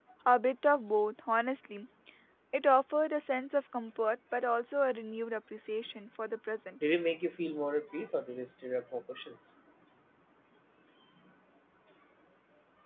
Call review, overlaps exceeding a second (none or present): none